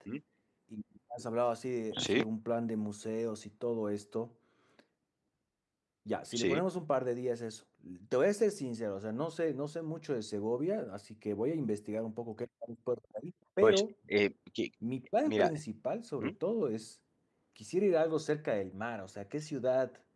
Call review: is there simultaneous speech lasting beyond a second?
No

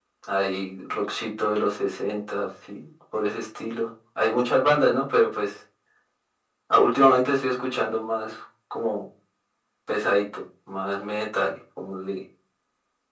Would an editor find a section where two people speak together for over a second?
No

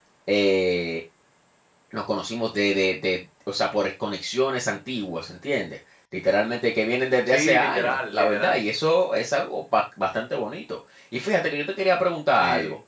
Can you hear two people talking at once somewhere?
Yes, from 7.3 s

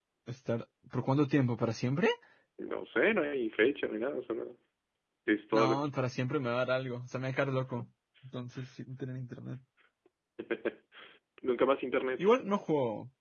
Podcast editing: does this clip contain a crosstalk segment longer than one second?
No

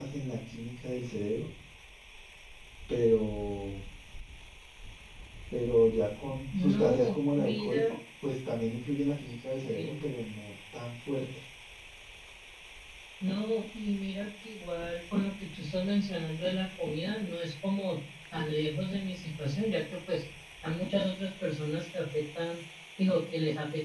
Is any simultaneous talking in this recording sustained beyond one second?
Yes, from 6.7 s

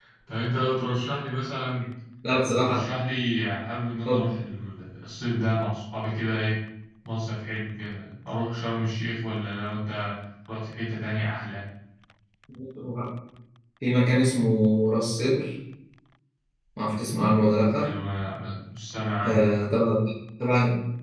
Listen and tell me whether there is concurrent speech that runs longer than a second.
No

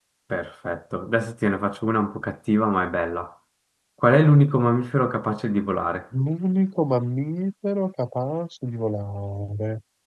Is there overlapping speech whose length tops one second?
No

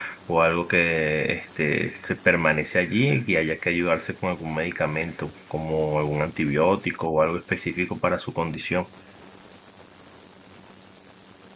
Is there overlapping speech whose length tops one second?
No

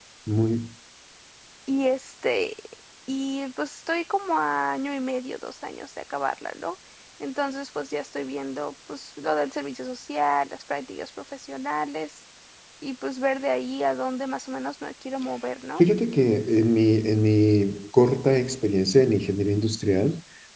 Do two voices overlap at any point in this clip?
No

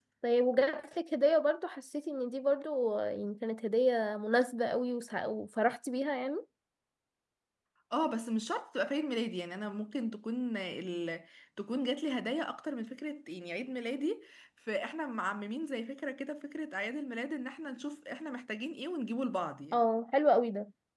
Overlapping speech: No

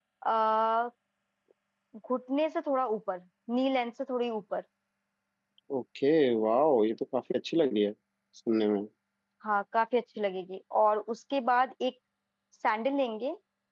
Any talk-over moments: No

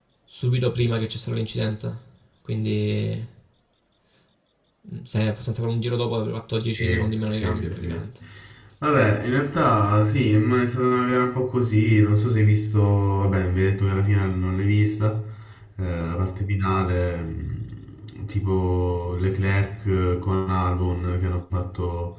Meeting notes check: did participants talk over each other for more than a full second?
Yes, from 6.8 s

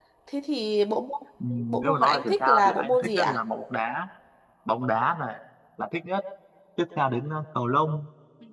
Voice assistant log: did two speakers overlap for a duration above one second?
Yes, from 1.8 s

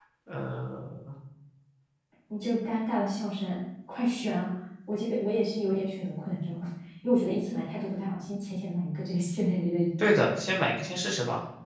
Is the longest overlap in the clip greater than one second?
No

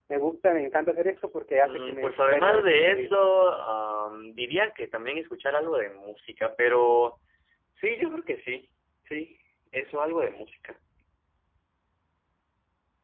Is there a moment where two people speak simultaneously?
Yes, from 1.6 s

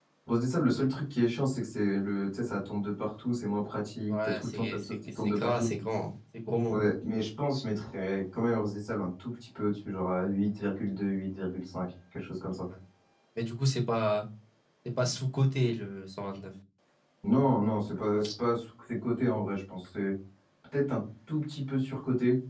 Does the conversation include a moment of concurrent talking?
Yes, from 4.1 s

